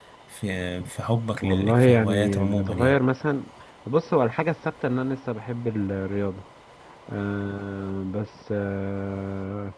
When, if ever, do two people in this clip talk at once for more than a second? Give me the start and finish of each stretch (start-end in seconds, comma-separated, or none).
1.4-3.0